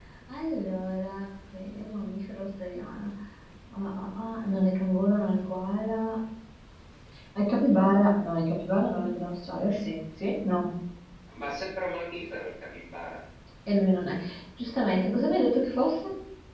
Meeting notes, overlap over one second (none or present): none